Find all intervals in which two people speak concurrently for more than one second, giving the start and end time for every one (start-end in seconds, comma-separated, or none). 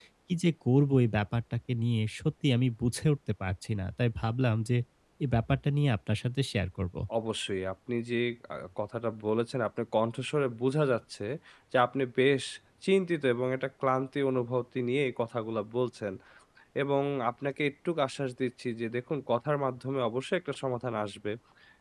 none